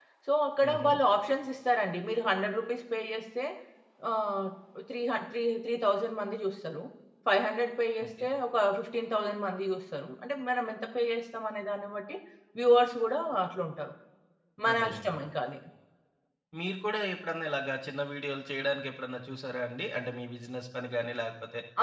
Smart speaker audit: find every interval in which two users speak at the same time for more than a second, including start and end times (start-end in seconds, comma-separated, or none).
none